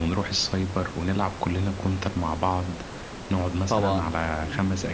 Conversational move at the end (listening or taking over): listening